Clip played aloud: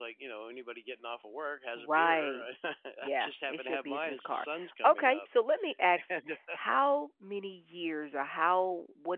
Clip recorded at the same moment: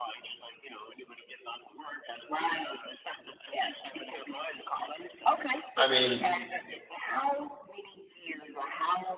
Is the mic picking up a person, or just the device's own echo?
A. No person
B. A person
B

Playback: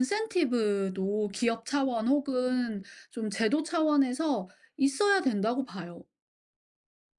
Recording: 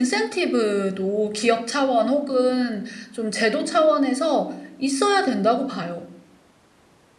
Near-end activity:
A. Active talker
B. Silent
B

